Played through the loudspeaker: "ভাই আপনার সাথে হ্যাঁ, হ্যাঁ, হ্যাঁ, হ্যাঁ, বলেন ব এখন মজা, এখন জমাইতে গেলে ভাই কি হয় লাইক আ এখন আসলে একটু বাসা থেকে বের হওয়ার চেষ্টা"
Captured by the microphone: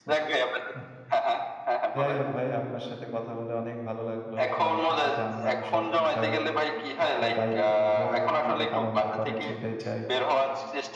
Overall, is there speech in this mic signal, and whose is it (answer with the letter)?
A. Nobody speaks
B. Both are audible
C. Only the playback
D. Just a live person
B